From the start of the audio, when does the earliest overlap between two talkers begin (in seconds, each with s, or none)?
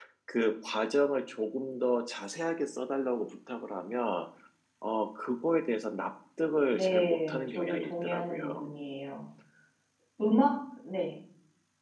6.7 s